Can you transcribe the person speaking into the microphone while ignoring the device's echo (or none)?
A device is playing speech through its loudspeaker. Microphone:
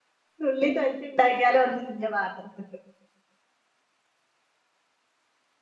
നുള്ളി തൊലിച്ച് ഇണ്ടാക്കിയാല് ഒന്നും ഇല്ല പാത്രത്ത്ക്ക്